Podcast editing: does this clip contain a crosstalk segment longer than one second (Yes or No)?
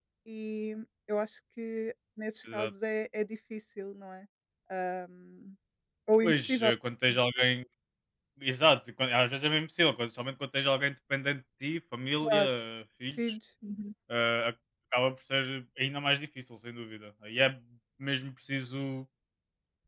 No